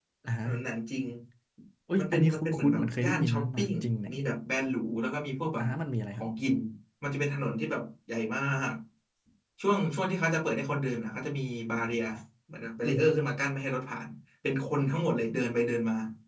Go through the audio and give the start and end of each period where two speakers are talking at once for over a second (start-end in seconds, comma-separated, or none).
2.0-3.7